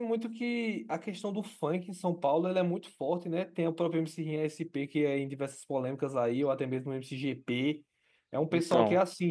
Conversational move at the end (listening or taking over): listening